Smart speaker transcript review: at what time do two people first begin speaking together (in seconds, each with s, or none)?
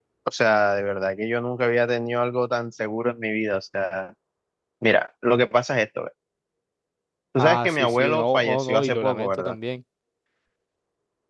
7.4 s